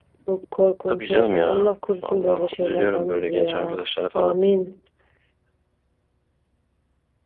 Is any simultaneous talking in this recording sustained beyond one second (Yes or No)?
Yes